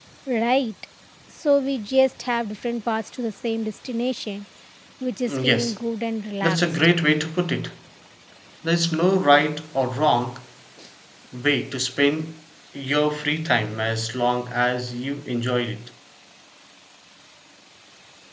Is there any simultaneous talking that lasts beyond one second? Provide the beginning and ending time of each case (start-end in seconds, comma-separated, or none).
none